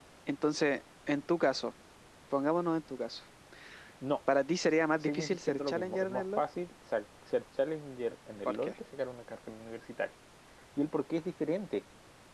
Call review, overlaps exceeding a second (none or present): present